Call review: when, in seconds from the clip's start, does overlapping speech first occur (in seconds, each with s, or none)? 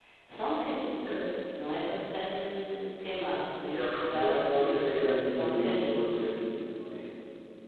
3.6 s